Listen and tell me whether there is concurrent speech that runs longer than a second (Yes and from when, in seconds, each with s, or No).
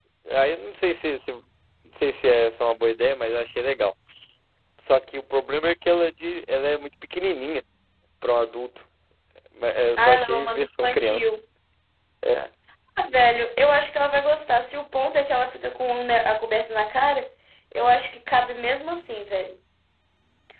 Yes, from 10.0 s